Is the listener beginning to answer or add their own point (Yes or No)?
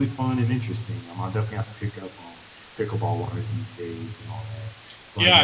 Yes